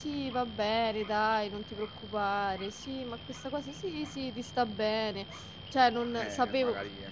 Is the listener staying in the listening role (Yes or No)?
No